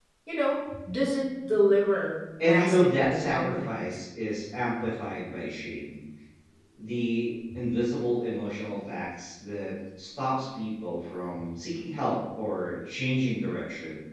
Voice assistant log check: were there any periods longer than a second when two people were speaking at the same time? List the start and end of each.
2.4-4.0

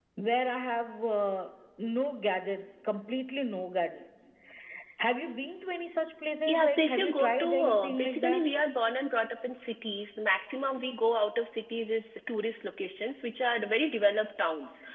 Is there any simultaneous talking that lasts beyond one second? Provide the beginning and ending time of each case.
6.5-8.5

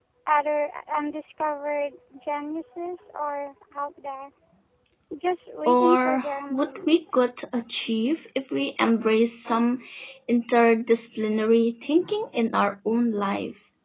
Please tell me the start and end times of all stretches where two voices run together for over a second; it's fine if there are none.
5.7-7.0

